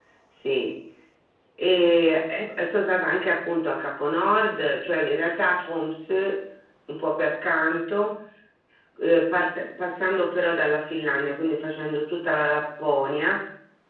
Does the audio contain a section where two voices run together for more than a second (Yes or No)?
No